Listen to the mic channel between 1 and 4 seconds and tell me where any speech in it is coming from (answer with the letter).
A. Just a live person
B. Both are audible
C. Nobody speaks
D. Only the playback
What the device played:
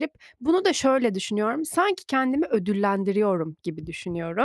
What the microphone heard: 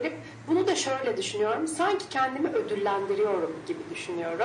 D